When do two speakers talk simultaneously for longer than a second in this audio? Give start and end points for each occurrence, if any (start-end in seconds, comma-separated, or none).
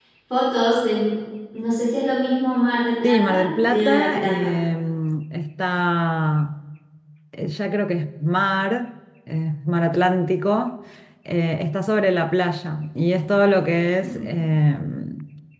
3.0-4.5